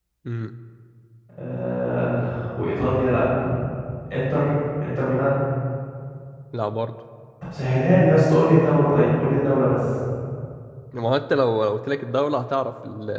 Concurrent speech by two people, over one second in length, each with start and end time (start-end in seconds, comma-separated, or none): none